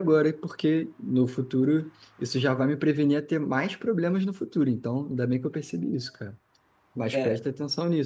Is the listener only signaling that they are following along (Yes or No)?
Yes